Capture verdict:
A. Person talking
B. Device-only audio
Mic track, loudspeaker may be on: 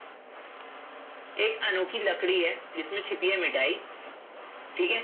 B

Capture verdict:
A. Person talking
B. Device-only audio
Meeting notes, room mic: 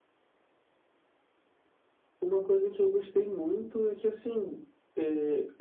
B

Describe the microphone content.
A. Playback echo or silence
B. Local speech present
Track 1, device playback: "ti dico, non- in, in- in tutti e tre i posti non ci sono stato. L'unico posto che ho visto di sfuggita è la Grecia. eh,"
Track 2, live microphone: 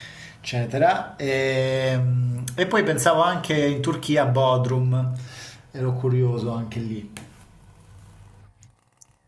B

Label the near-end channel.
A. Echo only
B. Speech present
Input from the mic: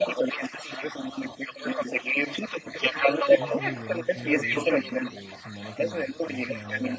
B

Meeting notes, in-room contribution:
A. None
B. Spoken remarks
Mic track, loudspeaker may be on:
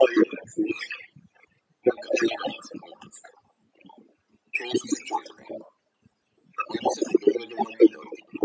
A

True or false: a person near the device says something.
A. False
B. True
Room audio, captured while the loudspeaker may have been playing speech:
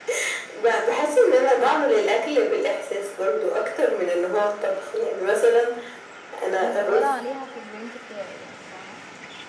B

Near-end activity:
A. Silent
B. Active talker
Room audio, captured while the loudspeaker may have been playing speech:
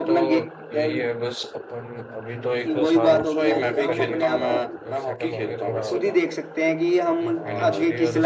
B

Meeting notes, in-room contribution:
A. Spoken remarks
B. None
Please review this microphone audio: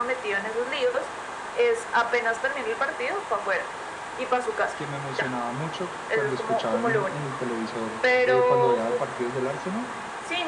A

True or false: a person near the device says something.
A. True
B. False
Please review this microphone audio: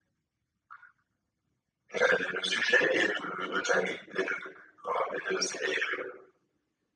B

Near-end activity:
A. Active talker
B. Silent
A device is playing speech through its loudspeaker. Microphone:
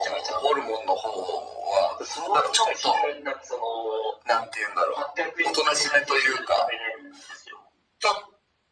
B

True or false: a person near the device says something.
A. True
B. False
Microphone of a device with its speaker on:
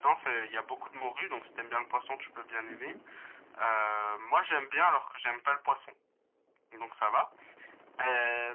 A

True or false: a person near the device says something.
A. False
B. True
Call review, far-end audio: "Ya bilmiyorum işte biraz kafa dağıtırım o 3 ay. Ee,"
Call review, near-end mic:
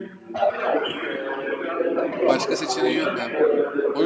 B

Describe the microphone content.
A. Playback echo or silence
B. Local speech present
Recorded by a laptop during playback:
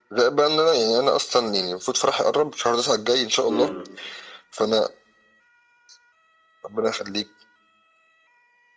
B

